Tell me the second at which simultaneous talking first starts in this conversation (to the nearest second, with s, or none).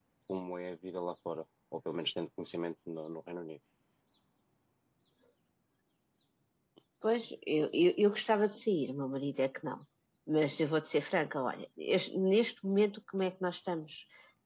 none